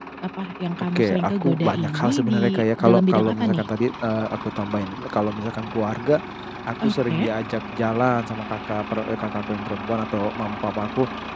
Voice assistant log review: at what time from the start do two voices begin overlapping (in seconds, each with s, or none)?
0.9 s